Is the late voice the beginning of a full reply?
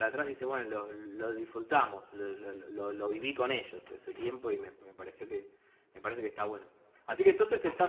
No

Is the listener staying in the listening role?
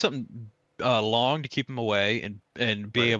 Yes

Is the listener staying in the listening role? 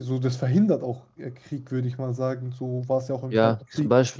No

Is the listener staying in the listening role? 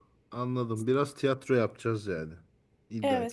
No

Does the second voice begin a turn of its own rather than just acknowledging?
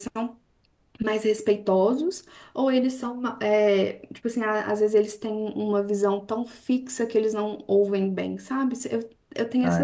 Yes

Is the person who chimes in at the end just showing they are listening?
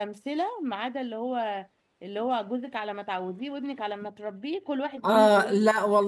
No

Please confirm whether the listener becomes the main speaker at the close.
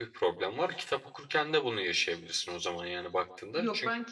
Yes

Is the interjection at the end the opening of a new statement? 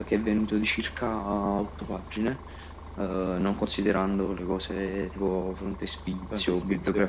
No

